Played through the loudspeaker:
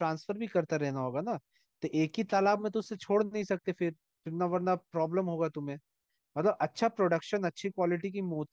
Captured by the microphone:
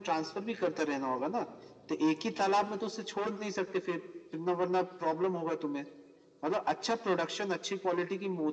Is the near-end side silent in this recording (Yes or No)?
Yes